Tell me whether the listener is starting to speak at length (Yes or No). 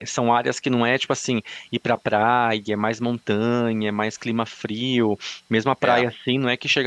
No